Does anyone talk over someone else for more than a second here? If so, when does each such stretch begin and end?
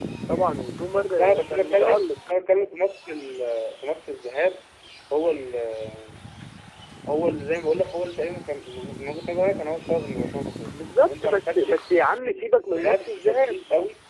0.9-2.1, 10.7-13.6

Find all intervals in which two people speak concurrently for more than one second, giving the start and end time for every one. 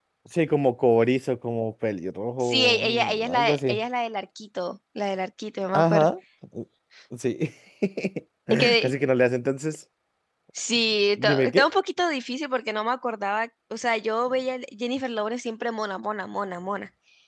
2.4-3.8

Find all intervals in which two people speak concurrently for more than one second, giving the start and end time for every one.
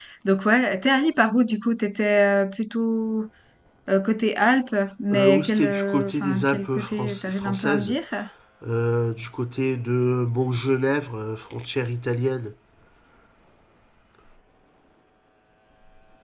5.1-8.0

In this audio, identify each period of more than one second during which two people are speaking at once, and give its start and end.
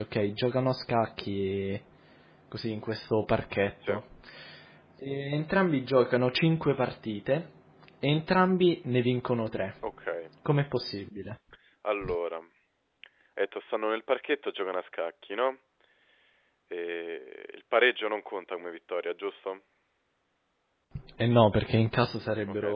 none

